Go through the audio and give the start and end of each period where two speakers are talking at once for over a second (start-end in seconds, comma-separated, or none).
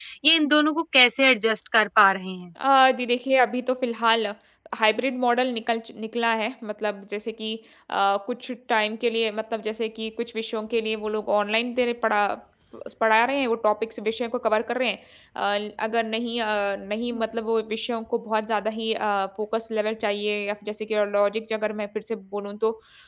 none